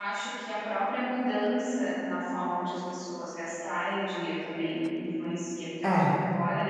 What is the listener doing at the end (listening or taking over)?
listening